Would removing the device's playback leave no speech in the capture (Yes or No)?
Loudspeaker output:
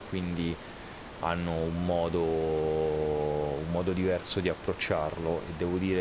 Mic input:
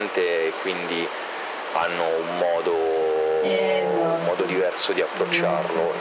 No